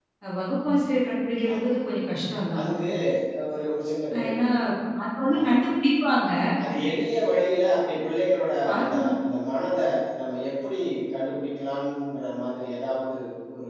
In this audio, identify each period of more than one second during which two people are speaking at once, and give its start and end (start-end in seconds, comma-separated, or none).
none